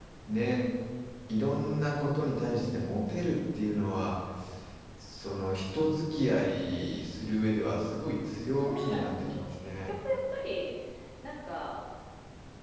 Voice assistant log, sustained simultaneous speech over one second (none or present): present